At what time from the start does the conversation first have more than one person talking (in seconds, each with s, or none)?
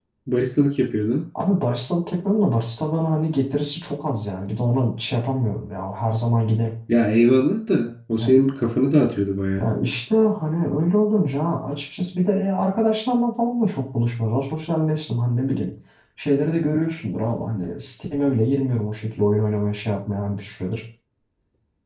none